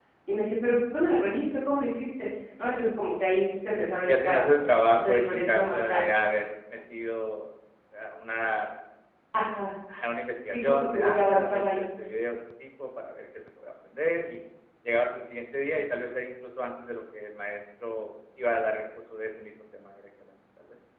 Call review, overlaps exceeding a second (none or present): present